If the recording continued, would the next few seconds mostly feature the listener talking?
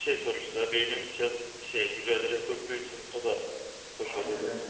Yes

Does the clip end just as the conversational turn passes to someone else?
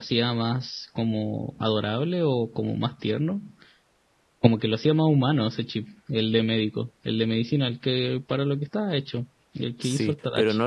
Yes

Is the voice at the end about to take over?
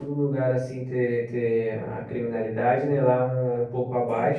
No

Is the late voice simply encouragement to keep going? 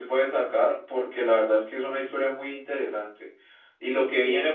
Yes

